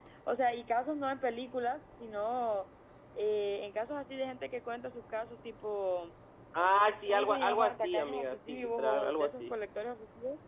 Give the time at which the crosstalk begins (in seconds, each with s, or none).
7.1 s